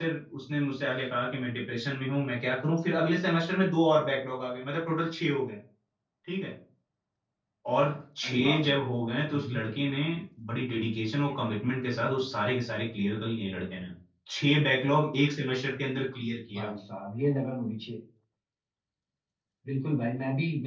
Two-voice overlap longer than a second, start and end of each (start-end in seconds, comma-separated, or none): none